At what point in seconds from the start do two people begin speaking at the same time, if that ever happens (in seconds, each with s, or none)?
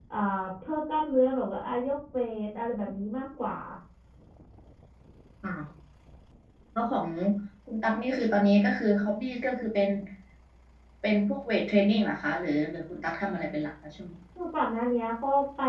none